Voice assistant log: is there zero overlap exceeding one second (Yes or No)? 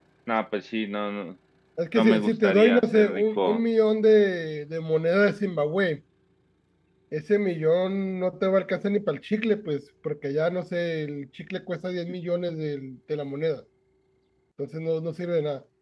No